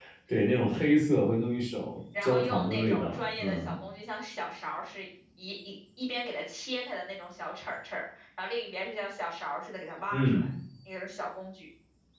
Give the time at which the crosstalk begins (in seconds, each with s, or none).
2.2 s